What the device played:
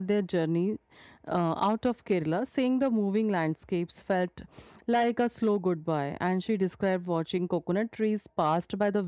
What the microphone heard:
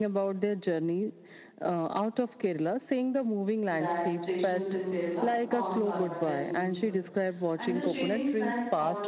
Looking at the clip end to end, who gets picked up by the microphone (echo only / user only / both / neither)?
both